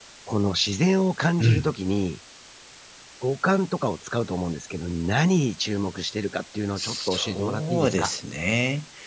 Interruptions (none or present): present